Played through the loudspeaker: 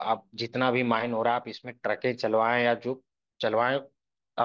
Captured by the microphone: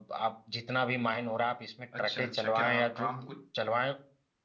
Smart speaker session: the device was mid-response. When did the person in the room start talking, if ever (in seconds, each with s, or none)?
2.0 s